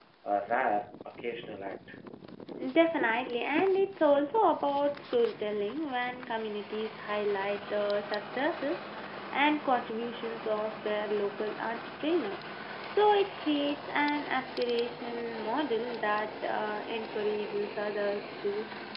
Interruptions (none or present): none